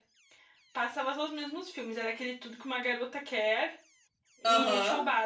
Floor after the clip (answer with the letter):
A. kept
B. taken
A